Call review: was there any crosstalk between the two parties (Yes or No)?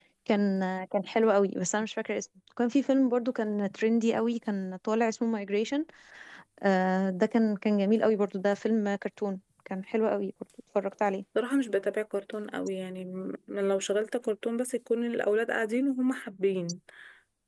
No